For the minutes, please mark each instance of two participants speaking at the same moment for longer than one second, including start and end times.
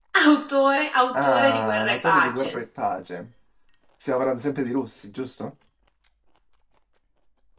1.1-2.6

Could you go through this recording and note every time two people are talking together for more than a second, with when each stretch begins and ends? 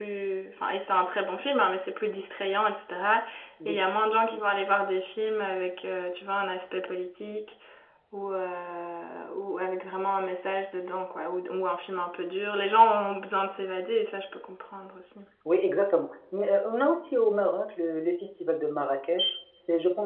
none

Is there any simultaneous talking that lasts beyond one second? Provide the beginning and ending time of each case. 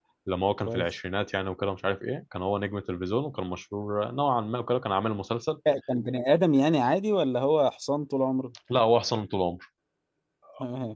none

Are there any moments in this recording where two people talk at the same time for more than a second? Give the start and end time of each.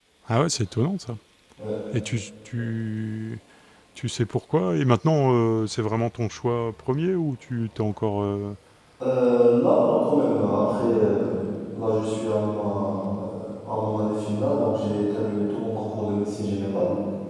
none

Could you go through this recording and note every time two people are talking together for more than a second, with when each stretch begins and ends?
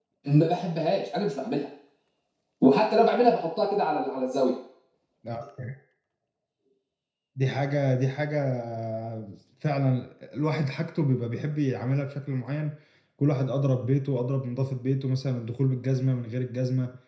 none

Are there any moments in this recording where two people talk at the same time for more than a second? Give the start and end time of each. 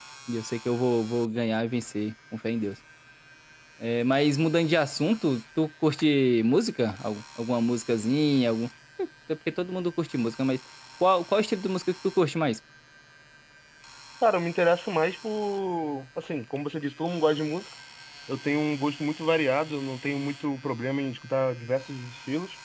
none

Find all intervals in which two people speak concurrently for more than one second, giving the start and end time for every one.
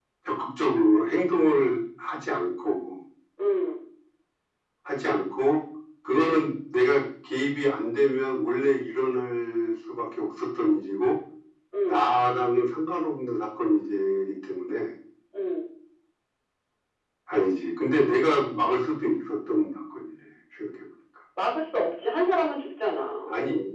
none

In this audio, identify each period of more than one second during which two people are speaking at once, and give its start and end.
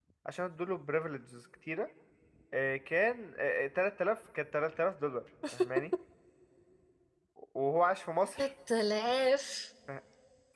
none

